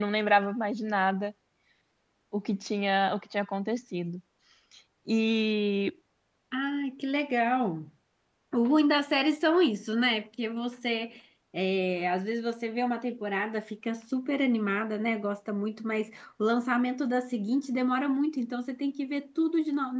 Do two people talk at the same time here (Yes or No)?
No